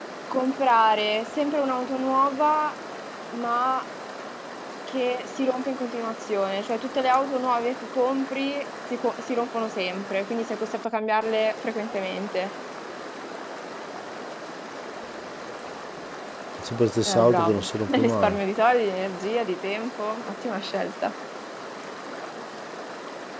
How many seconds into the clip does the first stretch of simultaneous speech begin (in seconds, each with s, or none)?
17.1 s